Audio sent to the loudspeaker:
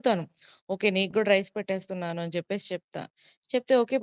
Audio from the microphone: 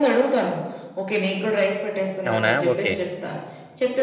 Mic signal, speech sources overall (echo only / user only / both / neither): both